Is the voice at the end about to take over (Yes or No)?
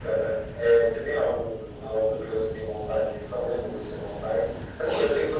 No